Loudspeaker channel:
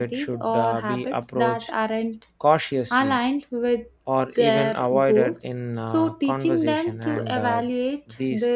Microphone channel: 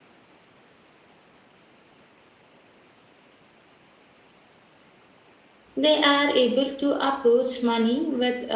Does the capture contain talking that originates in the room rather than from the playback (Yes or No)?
Yes